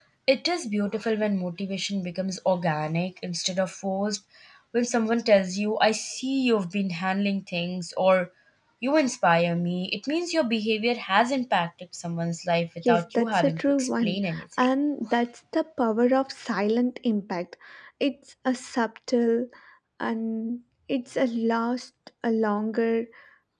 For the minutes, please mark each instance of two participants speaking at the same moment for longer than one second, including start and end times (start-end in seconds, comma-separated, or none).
12.8-14.7